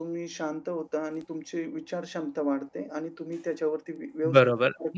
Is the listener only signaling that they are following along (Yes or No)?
No